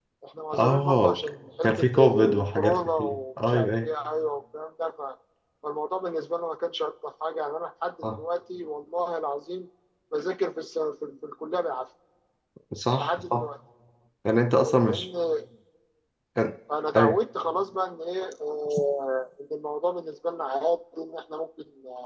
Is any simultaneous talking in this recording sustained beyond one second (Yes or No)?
Yes